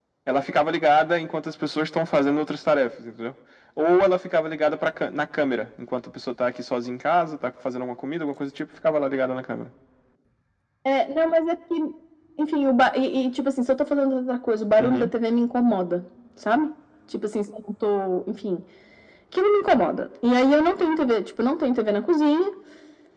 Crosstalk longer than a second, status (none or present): none